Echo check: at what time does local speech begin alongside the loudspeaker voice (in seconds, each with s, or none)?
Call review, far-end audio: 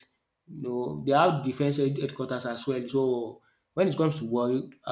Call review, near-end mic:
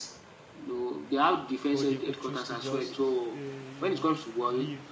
1.7 s